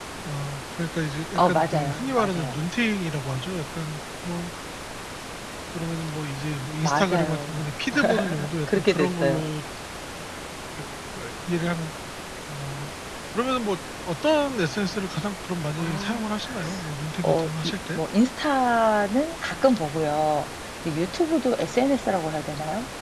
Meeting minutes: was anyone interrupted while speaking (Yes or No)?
Yes